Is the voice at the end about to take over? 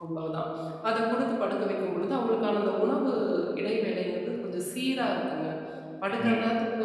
No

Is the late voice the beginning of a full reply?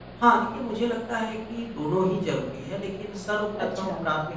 No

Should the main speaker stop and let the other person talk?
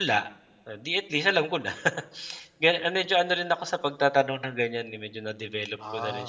Yes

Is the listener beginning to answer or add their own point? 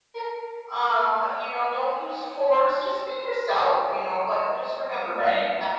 No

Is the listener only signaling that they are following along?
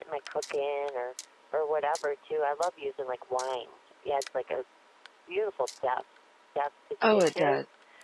No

